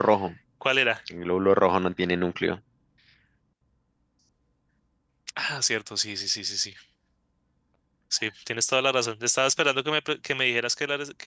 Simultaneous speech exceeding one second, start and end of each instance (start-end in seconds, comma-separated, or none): none